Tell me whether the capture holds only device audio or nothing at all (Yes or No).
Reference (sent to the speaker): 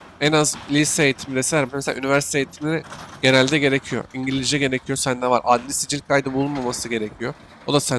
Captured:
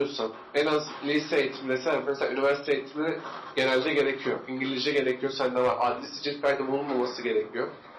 Yes